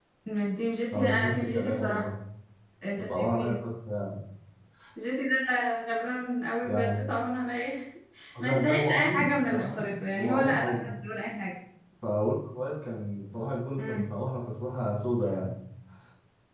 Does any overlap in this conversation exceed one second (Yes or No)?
Yes